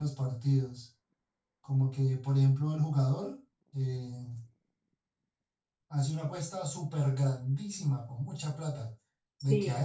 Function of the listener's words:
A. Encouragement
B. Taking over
A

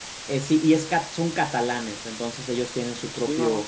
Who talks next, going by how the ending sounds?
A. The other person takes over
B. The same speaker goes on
B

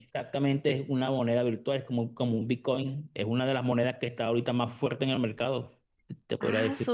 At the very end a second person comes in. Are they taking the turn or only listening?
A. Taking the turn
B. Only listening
A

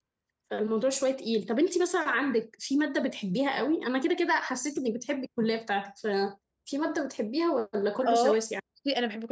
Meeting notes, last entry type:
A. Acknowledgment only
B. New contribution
B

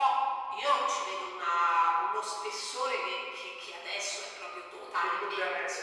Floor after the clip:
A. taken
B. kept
A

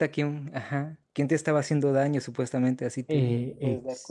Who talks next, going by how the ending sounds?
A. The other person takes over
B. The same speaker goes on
A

